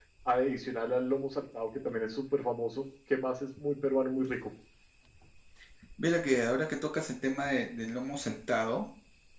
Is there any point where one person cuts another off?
No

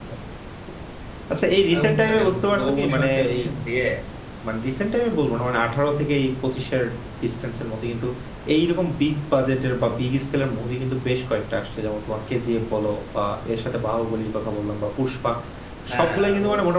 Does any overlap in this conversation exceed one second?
Yes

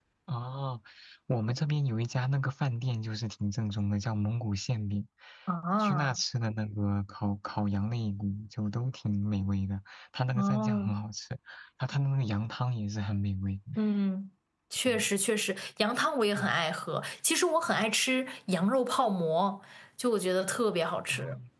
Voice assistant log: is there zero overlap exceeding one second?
Yes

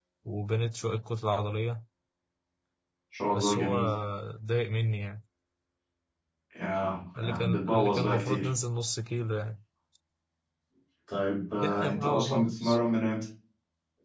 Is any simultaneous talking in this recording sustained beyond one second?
Yes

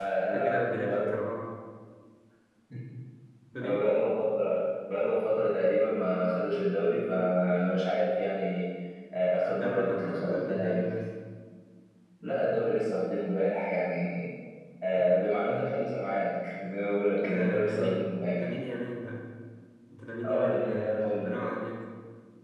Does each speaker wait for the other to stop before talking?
No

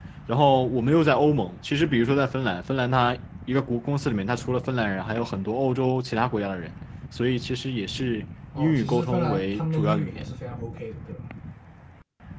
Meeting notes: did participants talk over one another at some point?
Yes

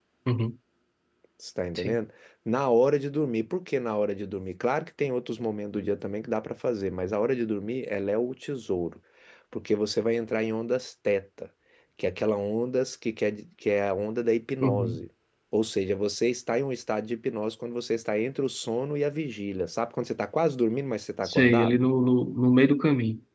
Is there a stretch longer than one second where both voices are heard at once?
No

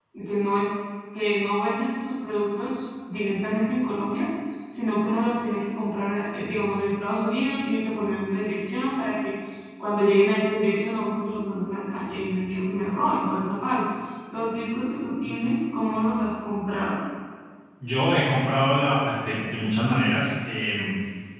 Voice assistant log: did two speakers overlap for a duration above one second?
No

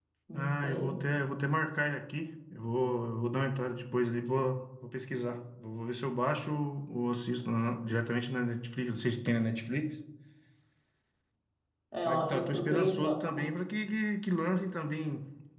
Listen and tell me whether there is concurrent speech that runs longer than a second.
Yes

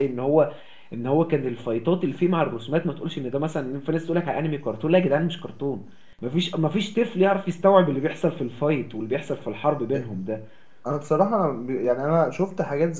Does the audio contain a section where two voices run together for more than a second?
No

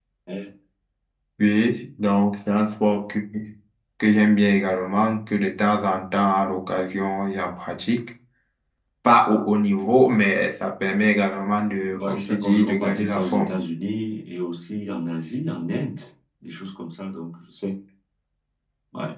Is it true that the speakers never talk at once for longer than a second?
No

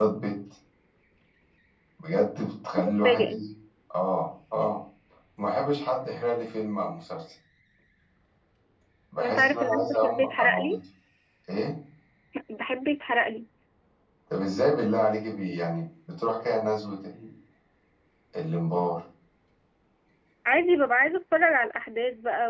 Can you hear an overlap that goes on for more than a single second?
Yes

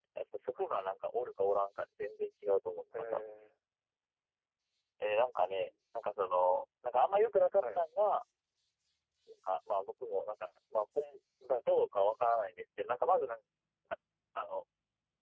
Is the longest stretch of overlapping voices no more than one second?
Yes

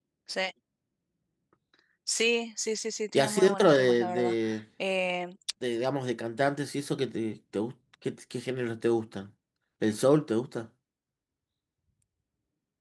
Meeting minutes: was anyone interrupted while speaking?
Yes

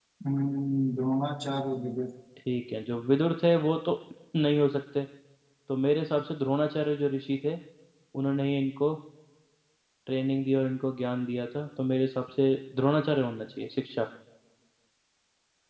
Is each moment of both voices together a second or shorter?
Yes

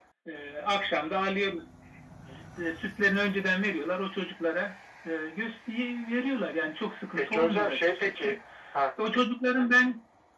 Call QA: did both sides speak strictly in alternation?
No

